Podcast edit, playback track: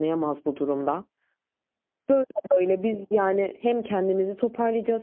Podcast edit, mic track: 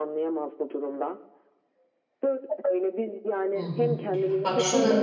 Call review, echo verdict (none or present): present